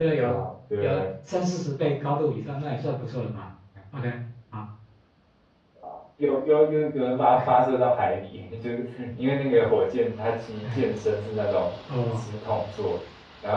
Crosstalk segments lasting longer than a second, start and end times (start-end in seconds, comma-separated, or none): none